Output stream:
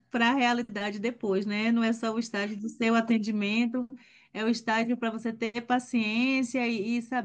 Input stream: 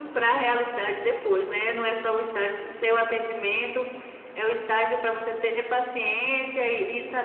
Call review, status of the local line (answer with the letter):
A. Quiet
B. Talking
A